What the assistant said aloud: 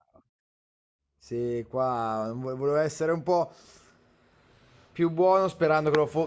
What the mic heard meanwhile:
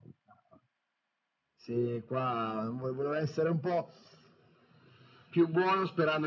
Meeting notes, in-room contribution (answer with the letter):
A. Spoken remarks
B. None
B